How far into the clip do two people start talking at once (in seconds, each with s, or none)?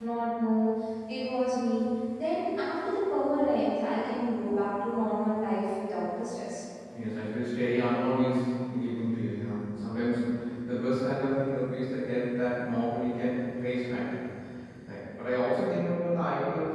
none